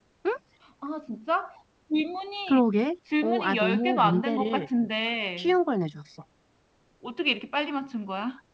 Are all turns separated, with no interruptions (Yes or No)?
No